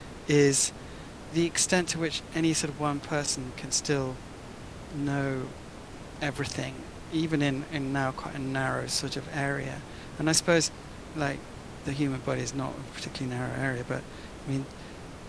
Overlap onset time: none

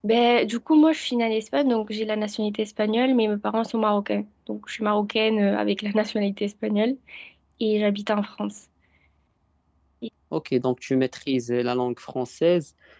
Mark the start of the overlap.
none

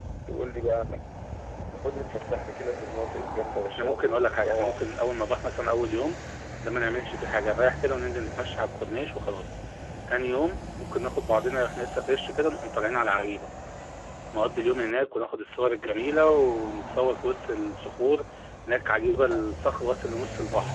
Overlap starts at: 4 s

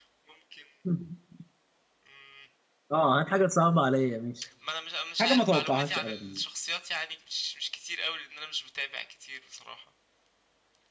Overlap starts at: 5 s

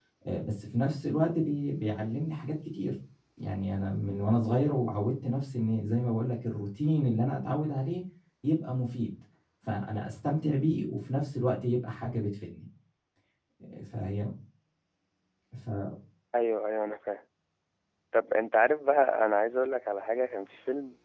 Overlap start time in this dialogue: none

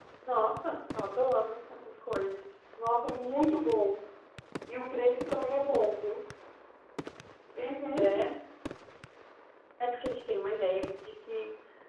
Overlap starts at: none

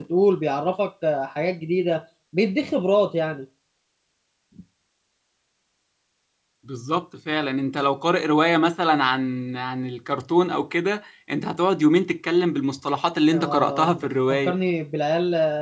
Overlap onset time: 13 s

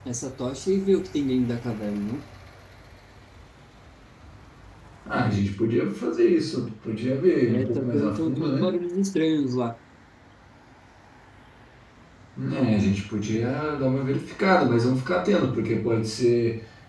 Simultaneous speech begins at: 7 s

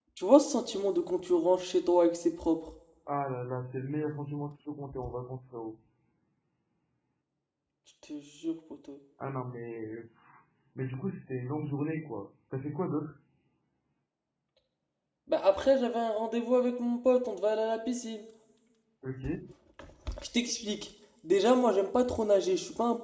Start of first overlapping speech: none

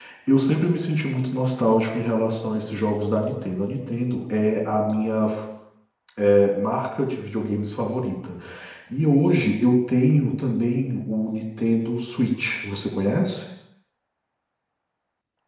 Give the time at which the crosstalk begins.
none

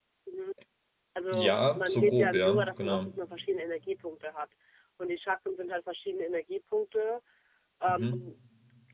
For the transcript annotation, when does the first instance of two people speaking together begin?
1 s

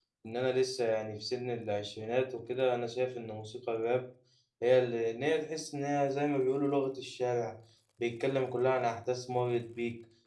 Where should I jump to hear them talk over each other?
none

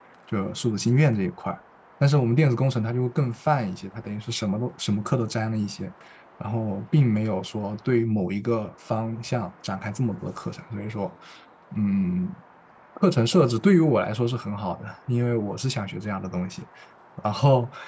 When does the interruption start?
none

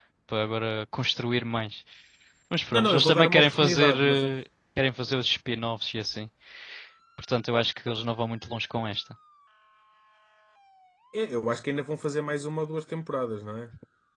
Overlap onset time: 3 s

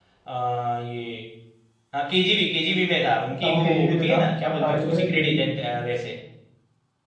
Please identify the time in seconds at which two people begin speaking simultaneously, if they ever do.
3 s

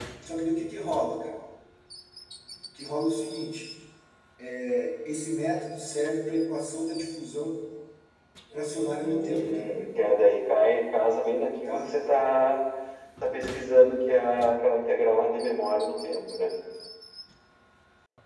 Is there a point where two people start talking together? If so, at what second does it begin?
9 s

